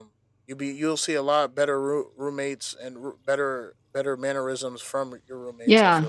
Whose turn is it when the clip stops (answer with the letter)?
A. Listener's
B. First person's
A